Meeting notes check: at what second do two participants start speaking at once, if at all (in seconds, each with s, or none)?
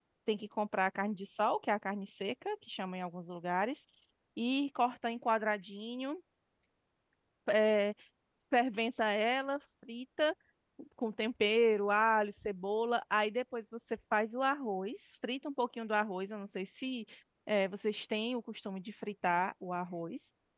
none